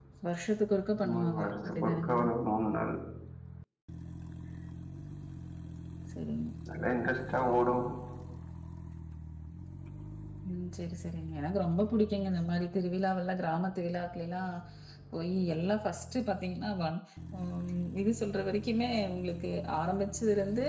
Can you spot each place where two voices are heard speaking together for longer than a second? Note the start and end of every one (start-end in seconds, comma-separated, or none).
1.0-2.2